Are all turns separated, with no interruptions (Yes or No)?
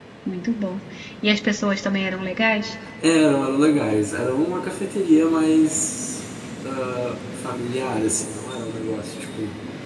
Yes